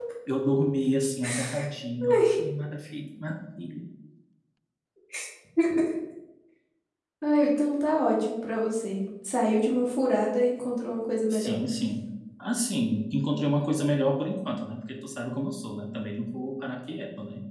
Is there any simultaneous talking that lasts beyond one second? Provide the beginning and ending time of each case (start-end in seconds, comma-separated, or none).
none